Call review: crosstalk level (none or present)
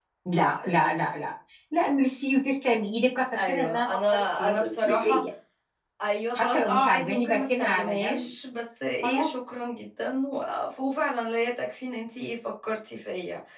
present